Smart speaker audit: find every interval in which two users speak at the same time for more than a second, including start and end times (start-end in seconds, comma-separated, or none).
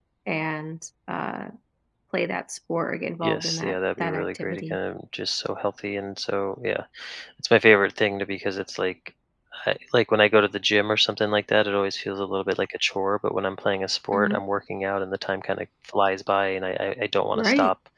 3.2-4.8